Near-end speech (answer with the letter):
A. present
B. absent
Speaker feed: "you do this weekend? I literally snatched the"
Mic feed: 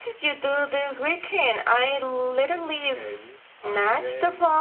A